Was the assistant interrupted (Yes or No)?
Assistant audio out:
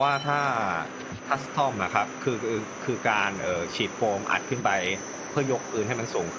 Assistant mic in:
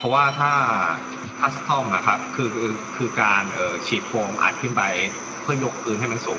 No